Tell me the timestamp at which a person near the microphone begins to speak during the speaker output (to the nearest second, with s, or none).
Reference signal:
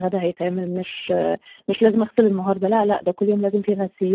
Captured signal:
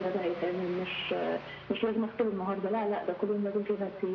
none